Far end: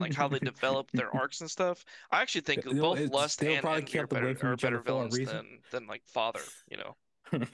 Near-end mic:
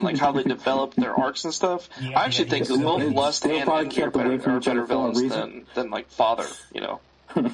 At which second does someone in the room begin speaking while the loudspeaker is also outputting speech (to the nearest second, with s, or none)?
2 s